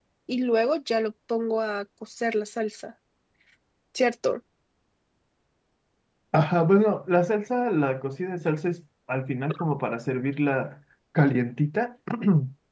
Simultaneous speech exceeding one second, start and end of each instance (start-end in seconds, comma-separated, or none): none